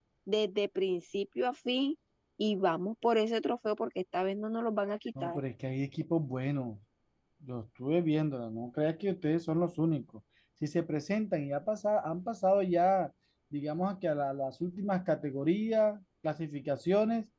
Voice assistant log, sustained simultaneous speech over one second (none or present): none